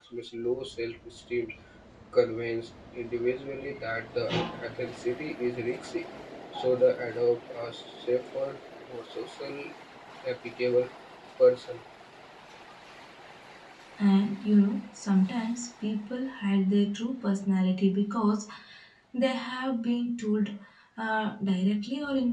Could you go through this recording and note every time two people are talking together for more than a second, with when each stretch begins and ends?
none

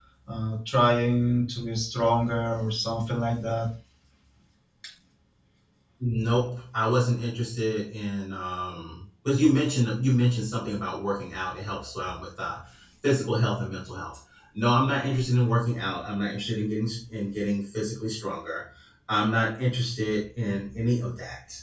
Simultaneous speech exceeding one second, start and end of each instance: none

